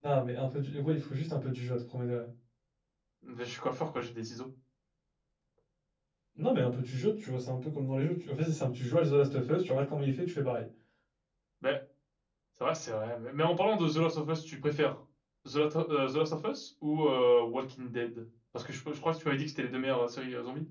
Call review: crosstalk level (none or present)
none